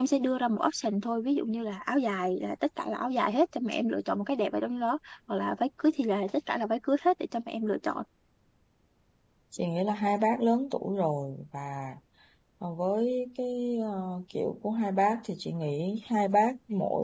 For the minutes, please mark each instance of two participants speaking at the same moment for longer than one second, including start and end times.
none

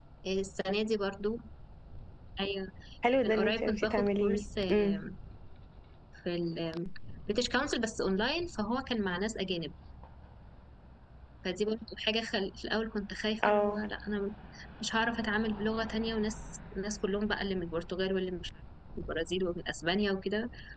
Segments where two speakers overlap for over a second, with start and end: 3.3-5.0

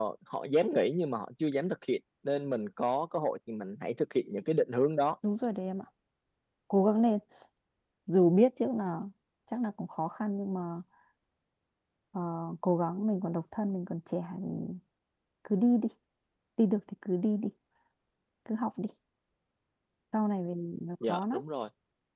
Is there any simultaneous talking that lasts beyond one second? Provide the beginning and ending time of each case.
none

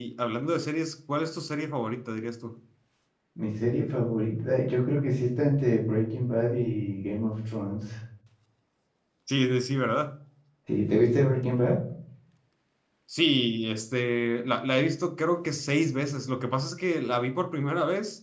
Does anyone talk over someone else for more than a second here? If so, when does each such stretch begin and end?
none

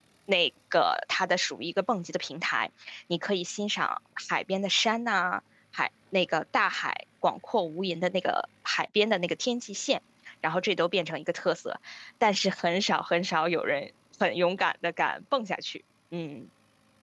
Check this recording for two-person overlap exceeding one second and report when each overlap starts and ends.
none

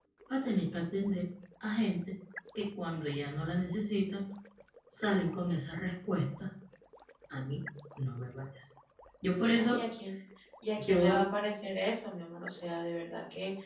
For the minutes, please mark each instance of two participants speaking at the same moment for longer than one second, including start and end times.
none

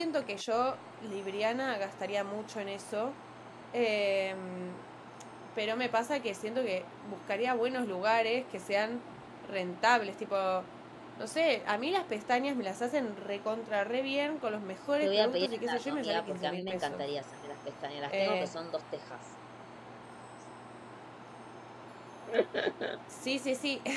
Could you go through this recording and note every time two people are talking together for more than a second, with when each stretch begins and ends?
15.0-17.1

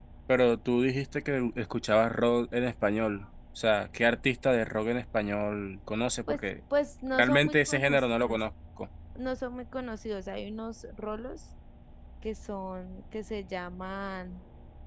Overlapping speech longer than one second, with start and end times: 7.1-8.4

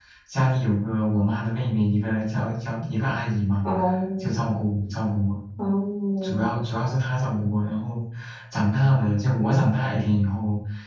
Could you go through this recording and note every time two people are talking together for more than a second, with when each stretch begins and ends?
none

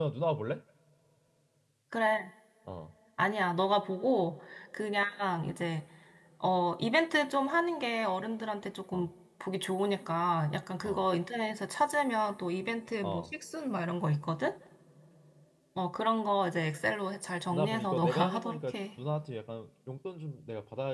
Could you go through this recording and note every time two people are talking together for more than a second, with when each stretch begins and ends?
17.5-18.8

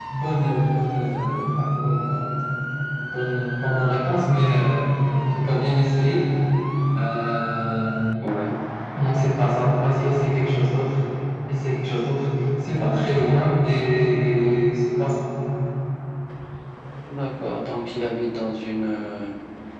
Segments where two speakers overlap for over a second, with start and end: none

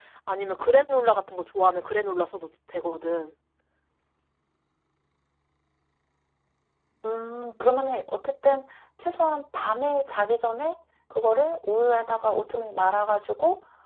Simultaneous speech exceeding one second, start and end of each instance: none

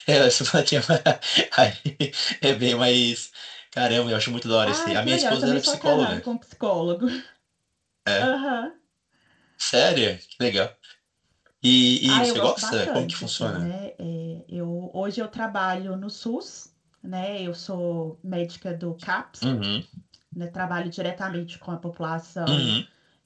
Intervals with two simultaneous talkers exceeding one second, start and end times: 4.7-6.2, 12.1-13.7

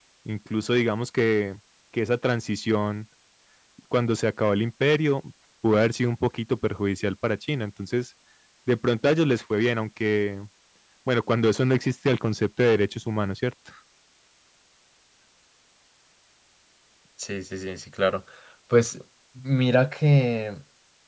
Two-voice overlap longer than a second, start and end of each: none

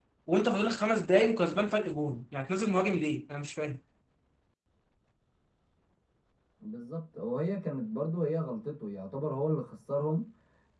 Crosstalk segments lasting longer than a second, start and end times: none

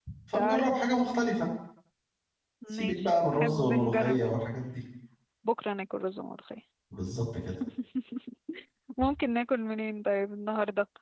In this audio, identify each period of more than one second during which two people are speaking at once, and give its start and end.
2.7-4.3

